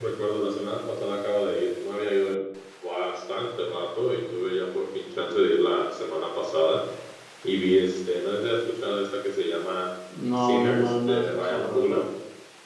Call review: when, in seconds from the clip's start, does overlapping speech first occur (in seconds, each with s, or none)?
10.1 s